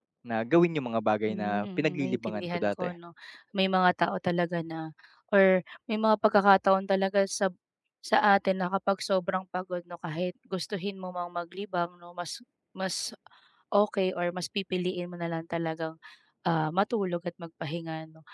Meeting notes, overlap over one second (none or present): present